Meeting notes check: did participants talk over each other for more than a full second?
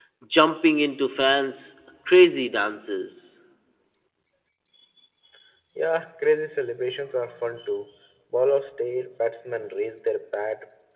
No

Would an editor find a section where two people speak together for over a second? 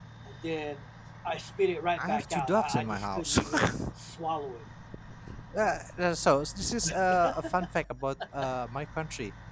Yes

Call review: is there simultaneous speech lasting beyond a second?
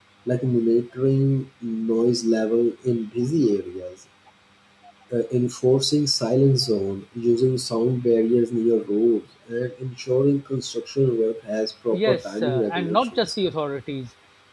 Yes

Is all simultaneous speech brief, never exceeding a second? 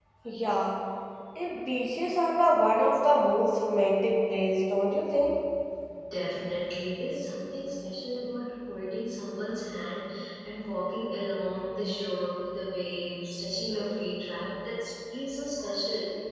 Yes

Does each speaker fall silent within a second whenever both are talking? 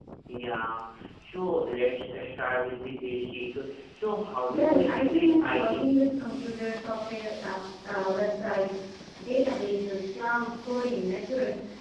No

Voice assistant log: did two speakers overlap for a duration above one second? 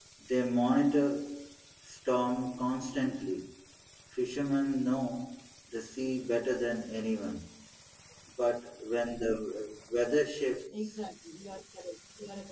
No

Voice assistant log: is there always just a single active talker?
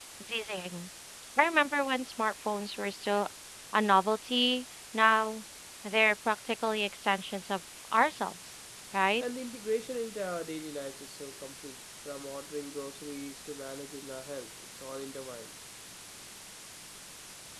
Yes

